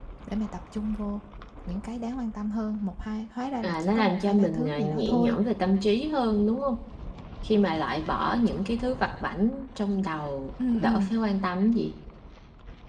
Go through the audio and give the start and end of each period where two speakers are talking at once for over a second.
3.6-5.4

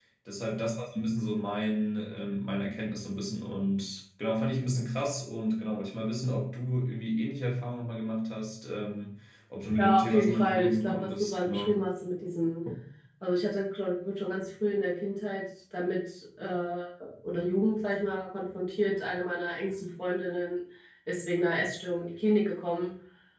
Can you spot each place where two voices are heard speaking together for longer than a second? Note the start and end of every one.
9.8-11.7

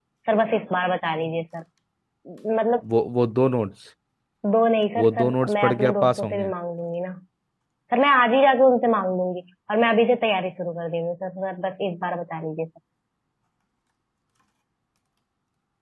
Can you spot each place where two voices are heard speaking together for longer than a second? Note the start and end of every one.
5.0-6.5

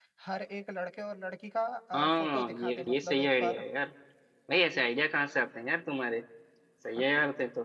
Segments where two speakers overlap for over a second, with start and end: 1.9-3.6

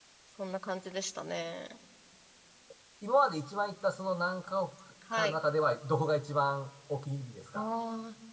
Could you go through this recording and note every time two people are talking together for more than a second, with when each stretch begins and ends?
none

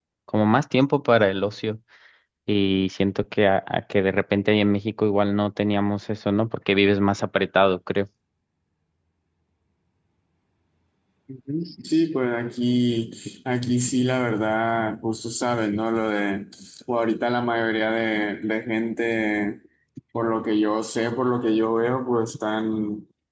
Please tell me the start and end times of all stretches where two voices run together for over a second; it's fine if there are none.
none

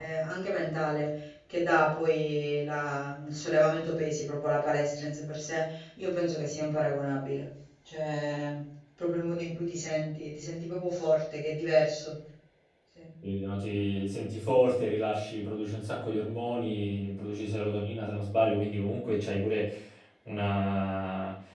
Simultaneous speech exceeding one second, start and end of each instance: none

